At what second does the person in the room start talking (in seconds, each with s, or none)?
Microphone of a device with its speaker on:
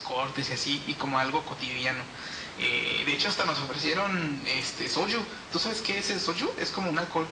none